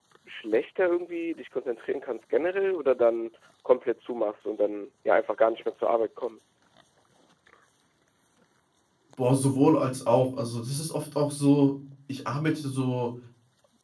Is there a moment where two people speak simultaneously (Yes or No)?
No